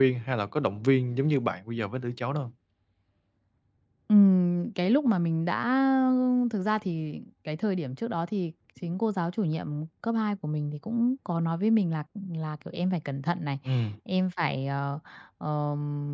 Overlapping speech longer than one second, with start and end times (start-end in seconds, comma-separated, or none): none